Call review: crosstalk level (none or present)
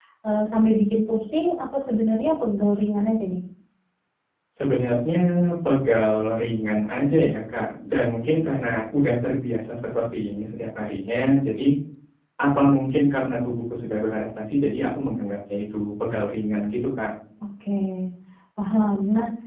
none